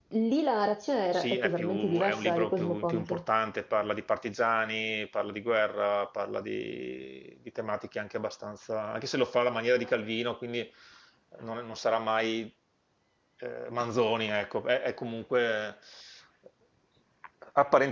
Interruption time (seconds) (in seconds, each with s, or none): 1.1 s